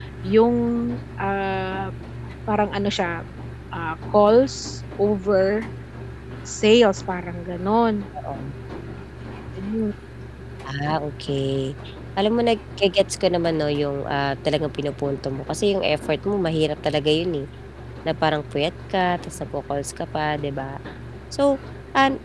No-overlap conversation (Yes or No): Yes